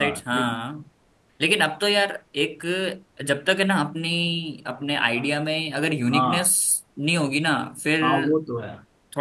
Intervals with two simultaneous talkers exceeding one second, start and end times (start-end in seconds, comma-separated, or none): none